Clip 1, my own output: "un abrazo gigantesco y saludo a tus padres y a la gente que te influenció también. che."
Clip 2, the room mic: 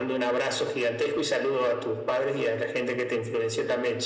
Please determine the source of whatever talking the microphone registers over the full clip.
echo only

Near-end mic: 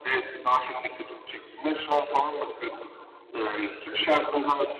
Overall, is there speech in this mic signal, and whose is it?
echo only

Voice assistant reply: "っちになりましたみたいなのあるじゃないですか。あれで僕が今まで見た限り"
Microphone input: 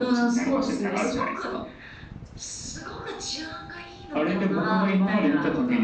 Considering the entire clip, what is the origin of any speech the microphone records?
both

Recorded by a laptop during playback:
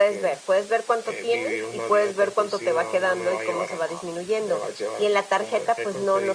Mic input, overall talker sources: echo only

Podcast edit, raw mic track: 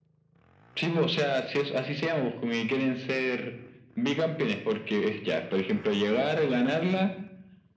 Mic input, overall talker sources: echo only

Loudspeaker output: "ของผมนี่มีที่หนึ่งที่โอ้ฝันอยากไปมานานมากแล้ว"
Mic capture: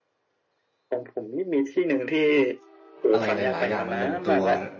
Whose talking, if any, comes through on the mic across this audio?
both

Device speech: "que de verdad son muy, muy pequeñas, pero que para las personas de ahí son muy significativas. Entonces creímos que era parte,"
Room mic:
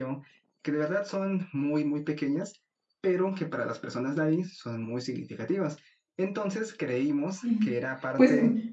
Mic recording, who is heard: both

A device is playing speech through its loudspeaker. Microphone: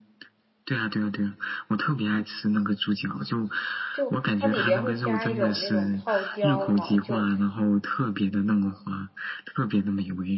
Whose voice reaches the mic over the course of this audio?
both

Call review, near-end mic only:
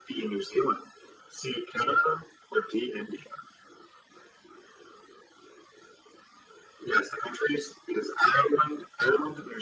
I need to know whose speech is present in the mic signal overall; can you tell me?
echo only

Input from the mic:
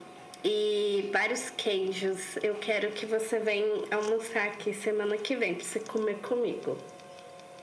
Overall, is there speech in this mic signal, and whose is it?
echo only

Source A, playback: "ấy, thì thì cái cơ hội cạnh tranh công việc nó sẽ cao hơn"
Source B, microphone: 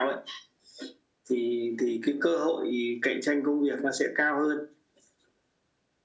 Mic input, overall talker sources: echo only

